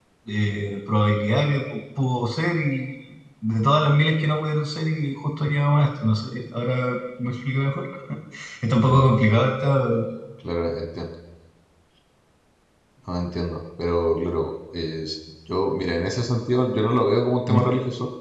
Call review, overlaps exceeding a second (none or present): none